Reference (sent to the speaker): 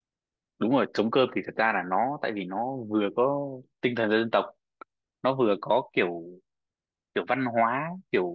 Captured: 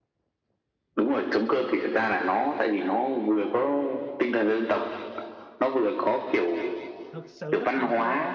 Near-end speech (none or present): present